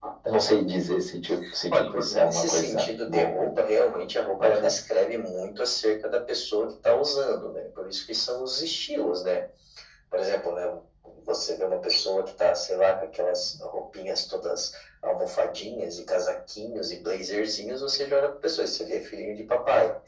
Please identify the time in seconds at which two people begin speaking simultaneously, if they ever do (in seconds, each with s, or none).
1.7 s